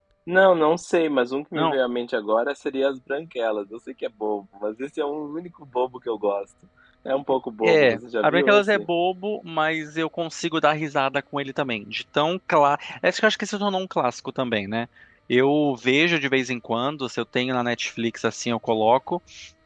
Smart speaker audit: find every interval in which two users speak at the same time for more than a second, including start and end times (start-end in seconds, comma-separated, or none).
7.6-8.8